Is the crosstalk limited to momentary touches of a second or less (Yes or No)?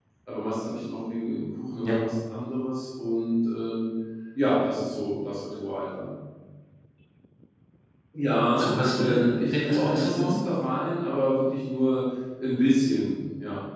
No